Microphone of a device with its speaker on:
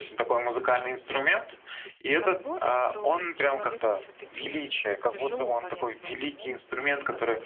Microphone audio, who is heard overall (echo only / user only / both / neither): both